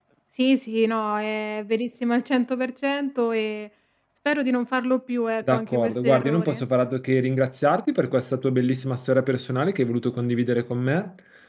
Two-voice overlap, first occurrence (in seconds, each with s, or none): 5.4 s